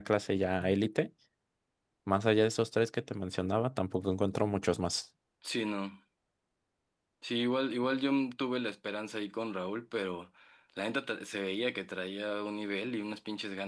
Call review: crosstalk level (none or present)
none